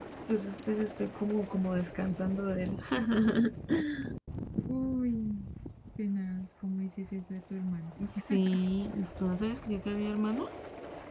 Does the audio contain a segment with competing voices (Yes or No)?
No